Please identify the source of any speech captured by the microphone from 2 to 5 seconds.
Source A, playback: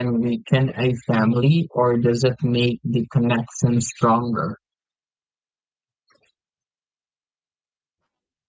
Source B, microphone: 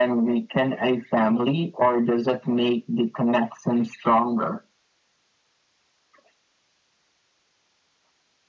echo only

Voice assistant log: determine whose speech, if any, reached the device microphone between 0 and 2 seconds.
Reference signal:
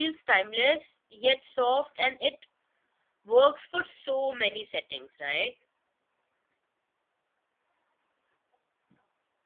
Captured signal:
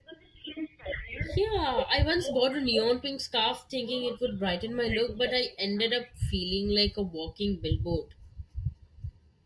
both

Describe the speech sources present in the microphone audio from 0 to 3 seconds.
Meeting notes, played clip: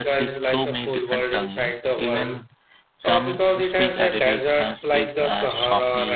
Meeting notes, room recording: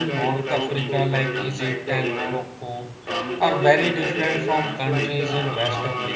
both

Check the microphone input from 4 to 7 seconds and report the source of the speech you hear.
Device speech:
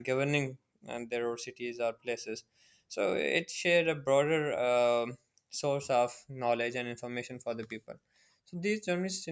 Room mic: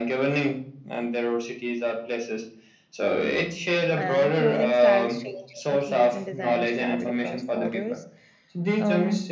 both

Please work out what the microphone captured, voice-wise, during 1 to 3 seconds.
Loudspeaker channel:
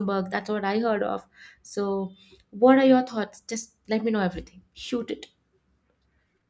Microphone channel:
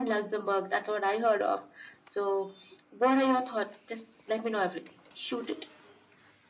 echo only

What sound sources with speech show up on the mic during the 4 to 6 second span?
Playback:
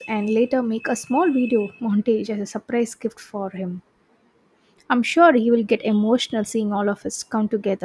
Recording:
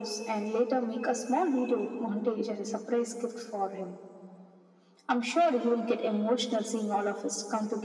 echo only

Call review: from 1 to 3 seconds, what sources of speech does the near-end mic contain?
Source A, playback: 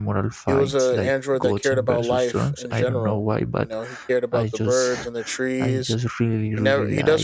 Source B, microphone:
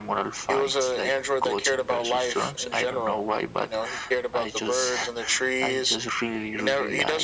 echo only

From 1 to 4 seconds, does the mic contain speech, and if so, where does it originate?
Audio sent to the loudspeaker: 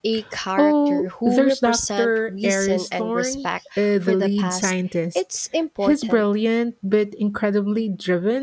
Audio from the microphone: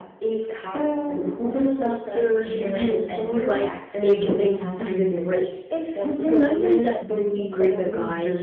both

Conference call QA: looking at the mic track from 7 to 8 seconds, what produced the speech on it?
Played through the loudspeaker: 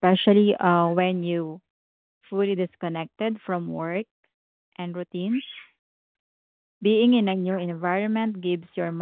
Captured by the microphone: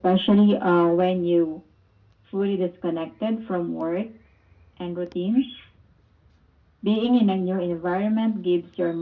echo only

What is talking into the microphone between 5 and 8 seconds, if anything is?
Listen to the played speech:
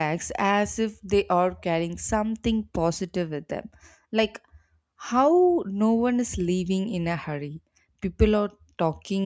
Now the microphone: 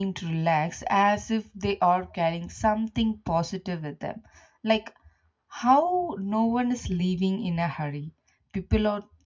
echo only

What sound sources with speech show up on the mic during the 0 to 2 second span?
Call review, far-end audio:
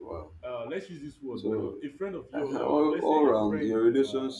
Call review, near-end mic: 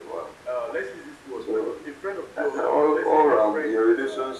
echo only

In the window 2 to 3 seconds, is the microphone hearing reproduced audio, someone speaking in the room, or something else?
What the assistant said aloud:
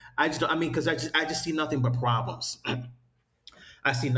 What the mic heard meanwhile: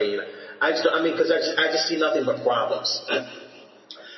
echo only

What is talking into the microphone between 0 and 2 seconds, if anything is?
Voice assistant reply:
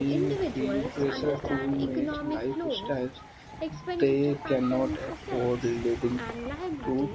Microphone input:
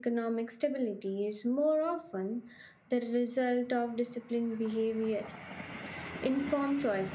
user only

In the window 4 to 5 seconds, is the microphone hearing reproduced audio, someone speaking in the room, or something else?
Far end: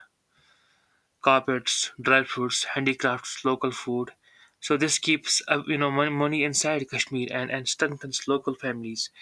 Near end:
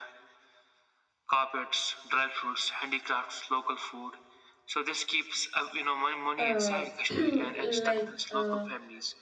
echo only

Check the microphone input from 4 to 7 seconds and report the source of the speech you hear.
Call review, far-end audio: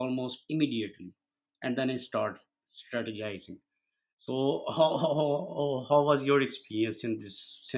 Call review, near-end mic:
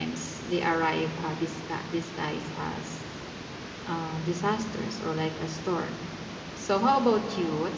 user only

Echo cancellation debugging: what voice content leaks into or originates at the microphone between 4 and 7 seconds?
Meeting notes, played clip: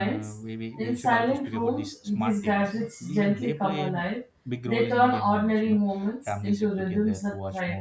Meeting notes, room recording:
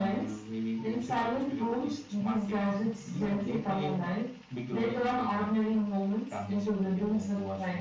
echo only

